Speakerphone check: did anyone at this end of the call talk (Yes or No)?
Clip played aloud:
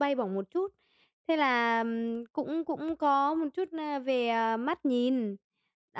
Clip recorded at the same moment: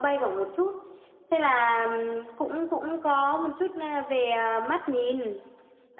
No